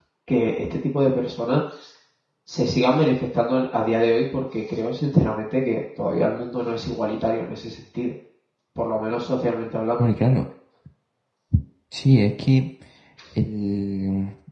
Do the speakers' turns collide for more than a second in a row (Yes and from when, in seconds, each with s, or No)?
No